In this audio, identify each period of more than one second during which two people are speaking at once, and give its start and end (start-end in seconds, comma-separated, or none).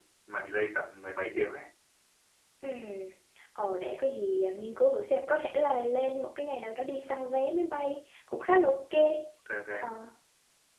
none